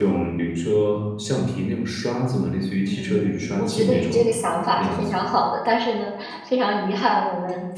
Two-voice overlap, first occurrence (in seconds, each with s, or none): 2.9 s